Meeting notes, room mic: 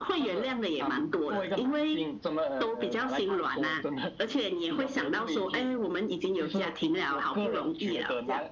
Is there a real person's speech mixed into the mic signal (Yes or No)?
No